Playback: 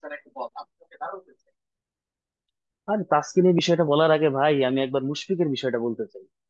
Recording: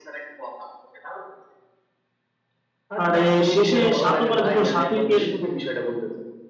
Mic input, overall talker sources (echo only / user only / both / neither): both